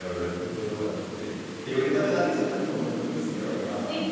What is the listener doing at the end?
taking over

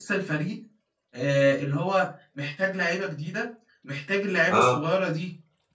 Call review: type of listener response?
listening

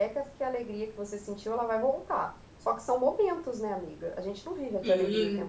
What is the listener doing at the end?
taking over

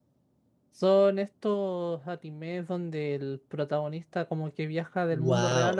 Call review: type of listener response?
taking over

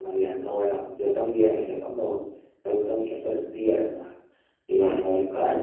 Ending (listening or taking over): listening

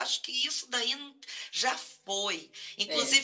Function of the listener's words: listening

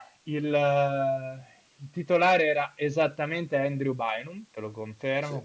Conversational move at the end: listening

